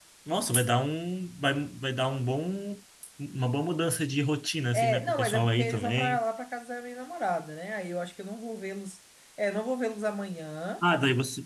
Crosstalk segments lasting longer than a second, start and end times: 4.7-6.2

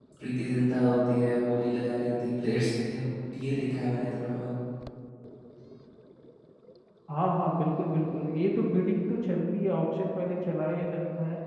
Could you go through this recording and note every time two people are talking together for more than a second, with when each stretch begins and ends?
none

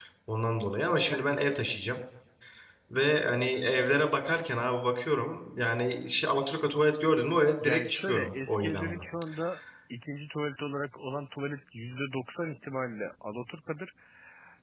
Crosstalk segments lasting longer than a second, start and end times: 7.6-9.0

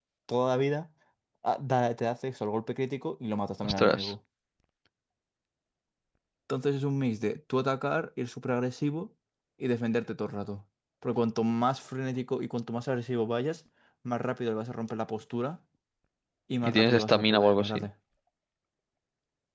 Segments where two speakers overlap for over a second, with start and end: 16.6-17.8

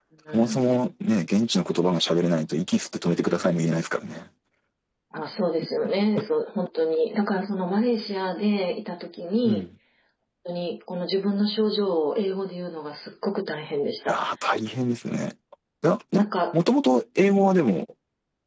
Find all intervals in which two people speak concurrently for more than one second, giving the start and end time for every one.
none

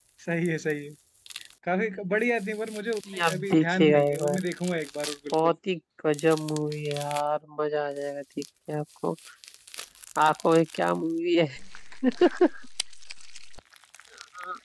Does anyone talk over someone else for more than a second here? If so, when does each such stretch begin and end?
3.1-4.4

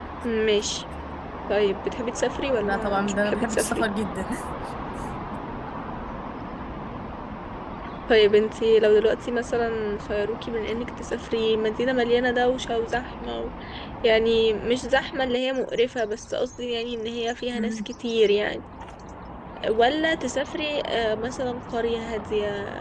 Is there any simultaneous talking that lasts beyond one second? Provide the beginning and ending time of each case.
2.5-3.8

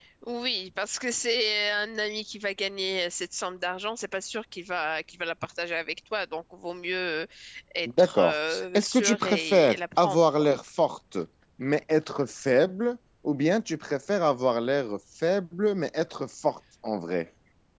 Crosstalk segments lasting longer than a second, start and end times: 8.0-10.5

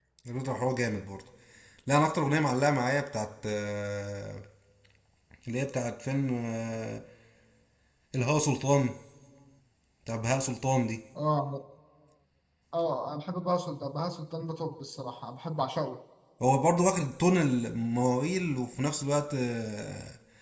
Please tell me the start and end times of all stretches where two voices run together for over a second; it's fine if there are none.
none

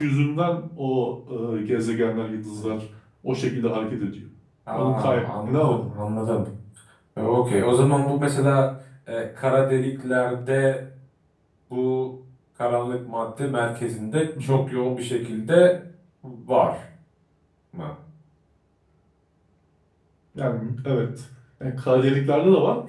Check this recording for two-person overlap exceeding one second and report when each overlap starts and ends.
none

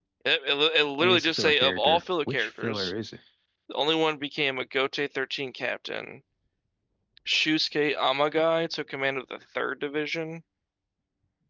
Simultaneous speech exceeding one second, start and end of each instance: 1.0-2.9

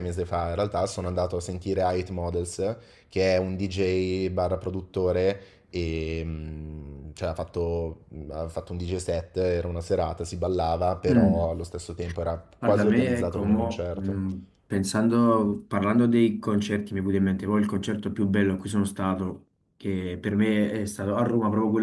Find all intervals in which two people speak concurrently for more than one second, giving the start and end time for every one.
12.6-14.2

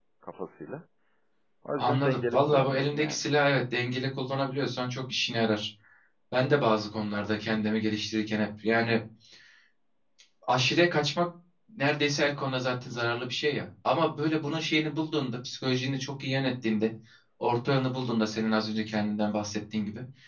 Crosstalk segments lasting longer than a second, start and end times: 1.8-3.2

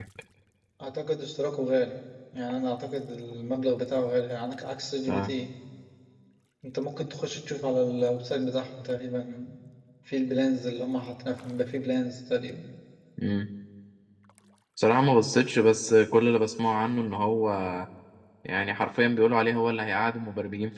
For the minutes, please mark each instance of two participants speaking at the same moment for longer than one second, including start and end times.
none

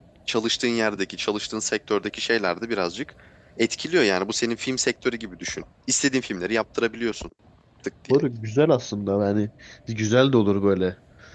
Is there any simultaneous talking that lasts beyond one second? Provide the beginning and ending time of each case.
none

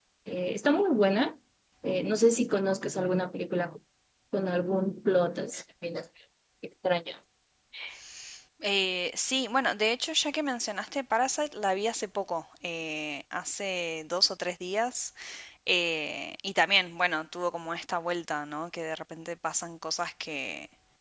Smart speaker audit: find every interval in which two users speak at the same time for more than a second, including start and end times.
none

